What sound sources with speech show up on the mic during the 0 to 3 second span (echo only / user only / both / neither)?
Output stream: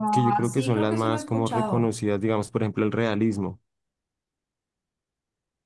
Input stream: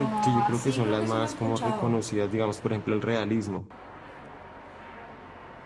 echo only